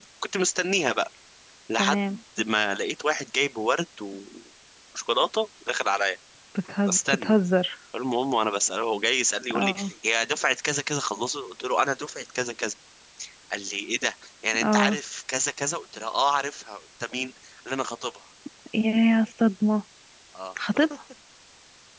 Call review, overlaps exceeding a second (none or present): none